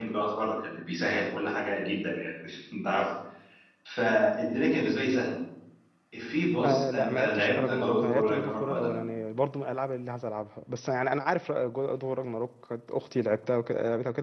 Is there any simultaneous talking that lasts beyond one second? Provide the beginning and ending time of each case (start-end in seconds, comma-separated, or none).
6.6-8.9